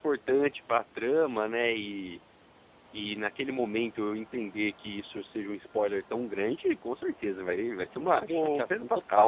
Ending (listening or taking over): taking over